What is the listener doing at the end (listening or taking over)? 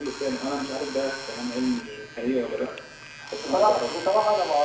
taking over